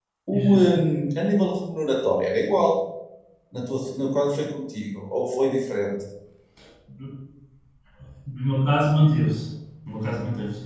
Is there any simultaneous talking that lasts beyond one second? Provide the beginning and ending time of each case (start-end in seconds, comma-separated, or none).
none